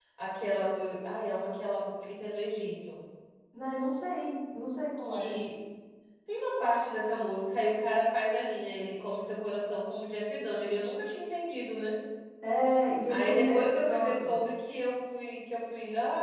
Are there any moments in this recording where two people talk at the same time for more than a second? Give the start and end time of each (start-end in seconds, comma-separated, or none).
13.1-14.4